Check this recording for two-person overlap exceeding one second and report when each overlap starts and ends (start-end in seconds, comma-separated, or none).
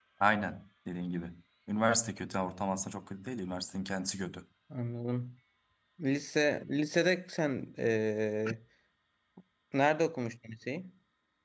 none